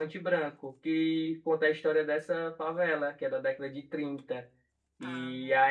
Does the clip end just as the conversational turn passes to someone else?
No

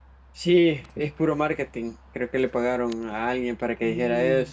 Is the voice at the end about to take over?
Yes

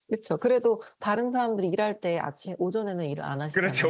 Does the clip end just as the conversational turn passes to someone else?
Yes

